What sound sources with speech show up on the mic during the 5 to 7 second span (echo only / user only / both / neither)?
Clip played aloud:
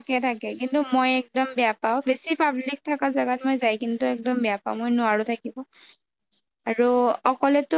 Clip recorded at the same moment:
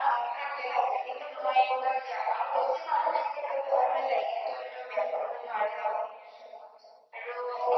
echo only